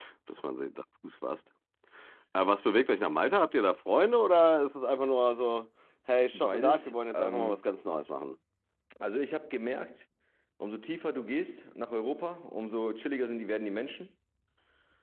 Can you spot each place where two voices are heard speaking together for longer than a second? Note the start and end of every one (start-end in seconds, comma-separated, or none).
6.3-7.6